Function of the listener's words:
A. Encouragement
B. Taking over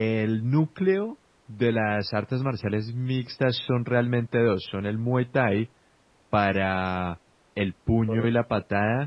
A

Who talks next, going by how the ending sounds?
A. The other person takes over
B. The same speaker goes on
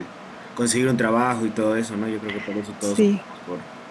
B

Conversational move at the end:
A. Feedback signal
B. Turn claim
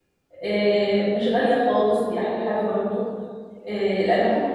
A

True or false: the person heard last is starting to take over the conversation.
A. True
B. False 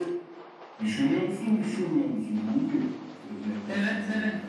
A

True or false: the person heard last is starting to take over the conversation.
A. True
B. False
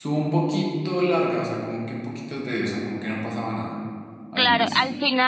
A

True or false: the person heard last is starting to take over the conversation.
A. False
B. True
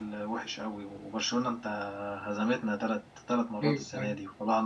A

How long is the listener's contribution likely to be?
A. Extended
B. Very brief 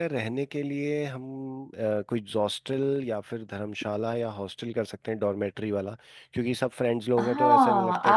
A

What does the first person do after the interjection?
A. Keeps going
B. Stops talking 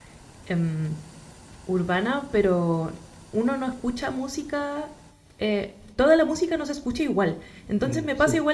A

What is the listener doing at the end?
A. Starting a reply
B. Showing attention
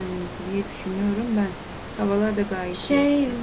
A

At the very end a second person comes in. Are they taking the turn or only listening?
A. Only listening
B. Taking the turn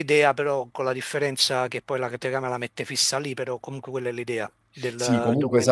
B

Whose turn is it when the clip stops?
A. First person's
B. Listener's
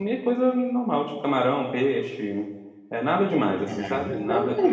B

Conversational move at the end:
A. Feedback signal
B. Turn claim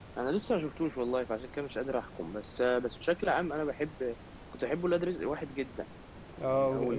B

